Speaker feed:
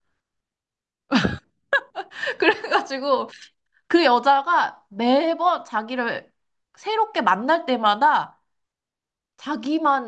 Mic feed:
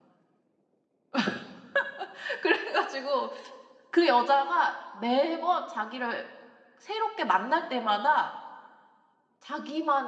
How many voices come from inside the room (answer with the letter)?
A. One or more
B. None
B